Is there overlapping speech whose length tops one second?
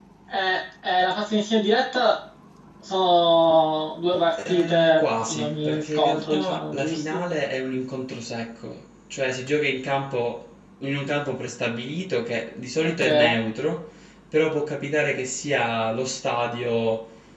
Yes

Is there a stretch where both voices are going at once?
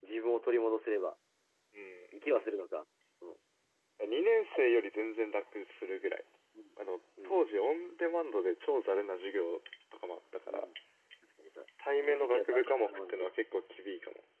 Yes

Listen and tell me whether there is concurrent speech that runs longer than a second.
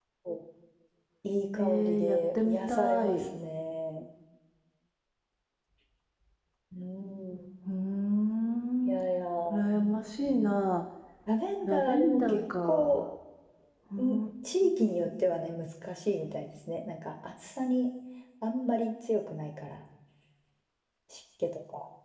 Yes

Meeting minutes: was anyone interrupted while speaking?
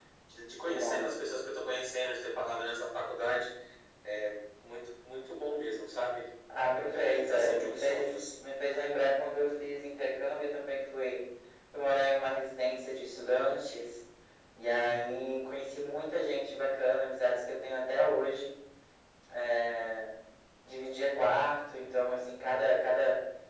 Yes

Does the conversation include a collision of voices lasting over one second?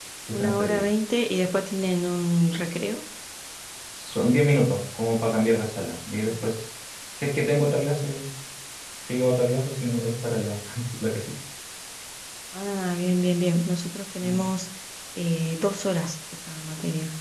No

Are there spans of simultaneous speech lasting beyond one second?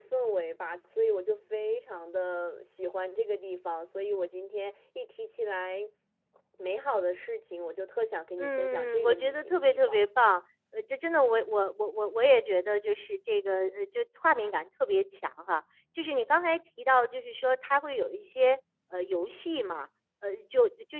Yes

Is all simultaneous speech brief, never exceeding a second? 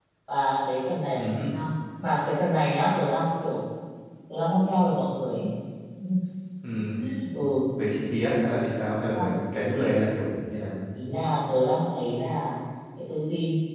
Yes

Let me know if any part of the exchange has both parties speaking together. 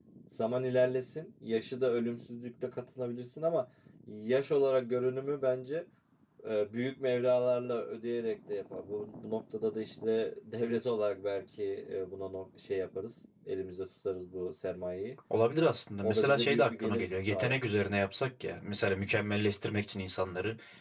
Yes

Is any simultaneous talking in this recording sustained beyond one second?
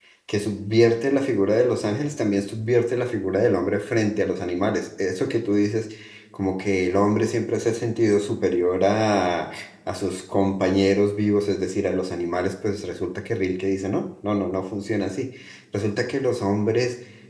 No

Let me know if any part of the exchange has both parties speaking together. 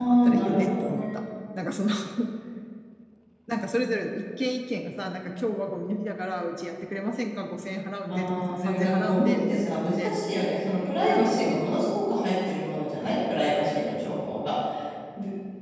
Yes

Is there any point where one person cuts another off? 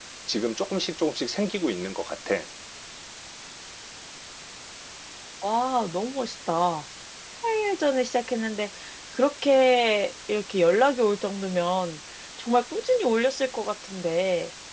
No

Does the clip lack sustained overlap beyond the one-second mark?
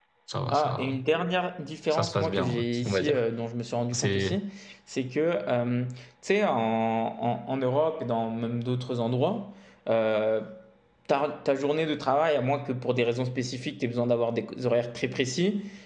No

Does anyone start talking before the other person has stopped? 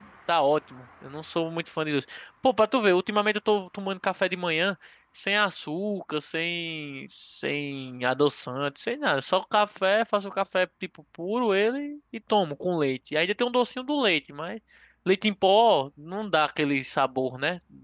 No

